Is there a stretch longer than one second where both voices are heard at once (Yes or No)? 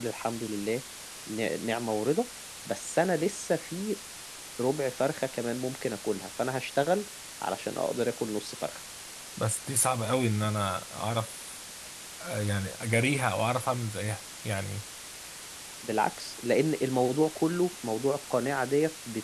No